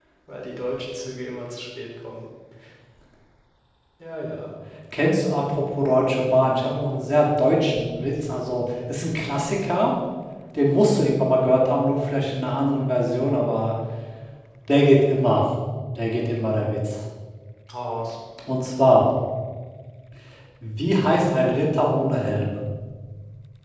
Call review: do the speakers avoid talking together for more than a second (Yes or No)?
Yes